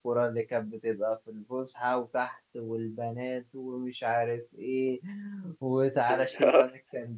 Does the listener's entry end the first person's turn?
No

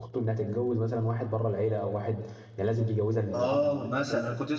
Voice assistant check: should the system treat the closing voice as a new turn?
Yes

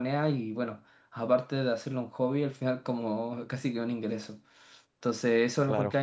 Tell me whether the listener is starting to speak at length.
No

